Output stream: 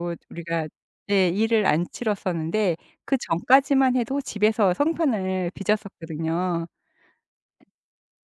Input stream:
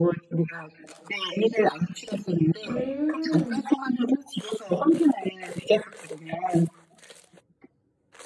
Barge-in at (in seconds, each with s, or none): 2.6 s